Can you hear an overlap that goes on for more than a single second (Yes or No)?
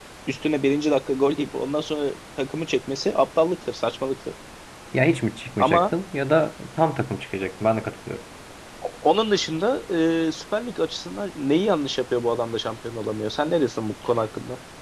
No